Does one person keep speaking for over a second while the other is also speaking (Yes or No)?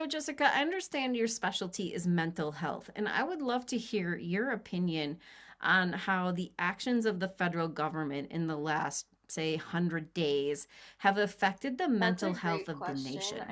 Yes